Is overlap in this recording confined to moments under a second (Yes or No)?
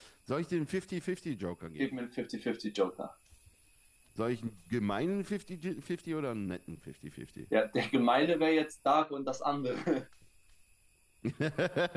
Yes